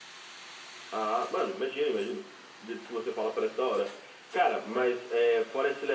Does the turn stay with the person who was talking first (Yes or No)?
Yes